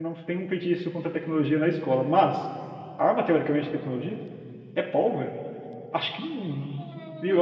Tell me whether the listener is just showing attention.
No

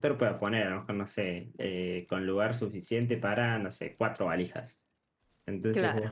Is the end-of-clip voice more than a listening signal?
No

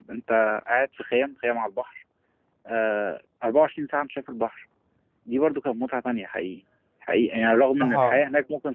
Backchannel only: Yes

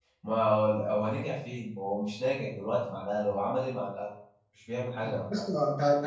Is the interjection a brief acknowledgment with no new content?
No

